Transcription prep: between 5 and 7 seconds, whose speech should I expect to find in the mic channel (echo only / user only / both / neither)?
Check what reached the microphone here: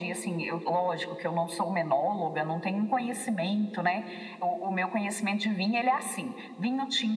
echo only